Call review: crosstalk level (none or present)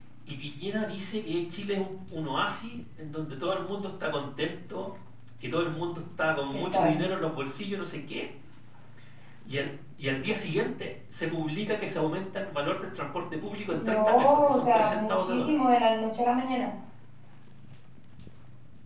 present